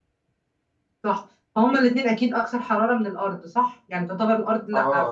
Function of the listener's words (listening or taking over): taking over